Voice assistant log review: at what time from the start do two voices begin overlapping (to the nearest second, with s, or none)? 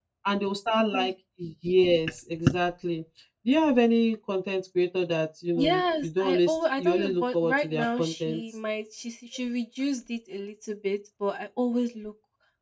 6 s